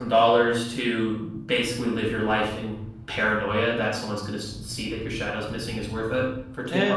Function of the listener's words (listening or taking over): taking over